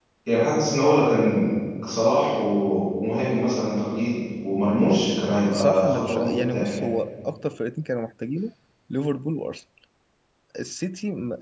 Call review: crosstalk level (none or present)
present